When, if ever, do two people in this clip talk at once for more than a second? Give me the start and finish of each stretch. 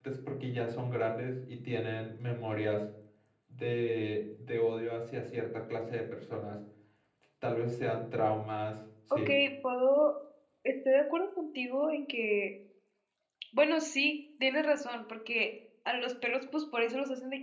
none

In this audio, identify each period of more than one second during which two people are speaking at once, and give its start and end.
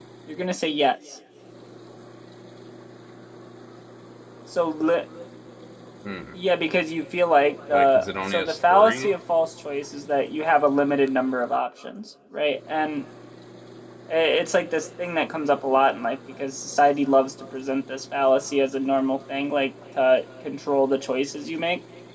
7.7-9.1

